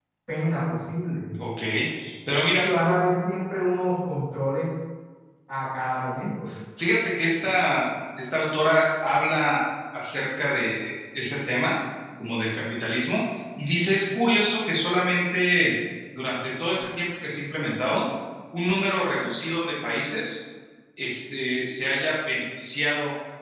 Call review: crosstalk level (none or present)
none